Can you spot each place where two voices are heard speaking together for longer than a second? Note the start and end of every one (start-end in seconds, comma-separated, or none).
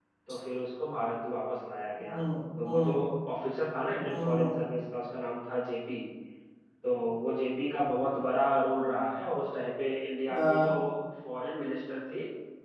none